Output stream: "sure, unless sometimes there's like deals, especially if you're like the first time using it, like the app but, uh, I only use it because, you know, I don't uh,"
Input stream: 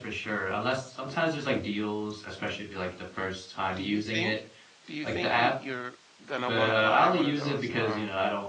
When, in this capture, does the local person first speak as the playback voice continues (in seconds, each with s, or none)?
3.8 s